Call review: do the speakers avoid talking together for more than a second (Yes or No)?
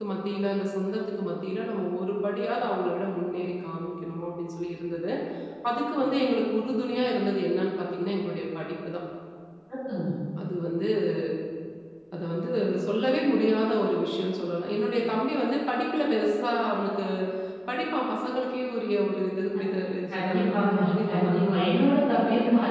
No